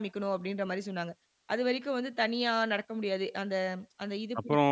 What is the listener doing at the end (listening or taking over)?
taking over